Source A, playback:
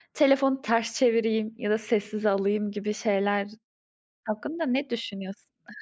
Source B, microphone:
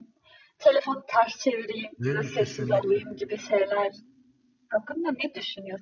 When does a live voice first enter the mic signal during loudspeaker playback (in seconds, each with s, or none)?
2.0 s